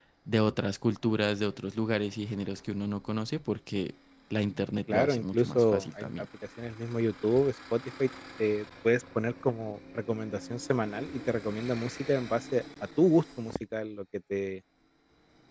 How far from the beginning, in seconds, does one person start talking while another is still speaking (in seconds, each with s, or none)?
4.9 s